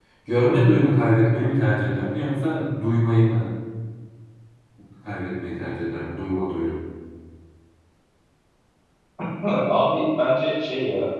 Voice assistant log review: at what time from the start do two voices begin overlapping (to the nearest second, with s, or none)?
none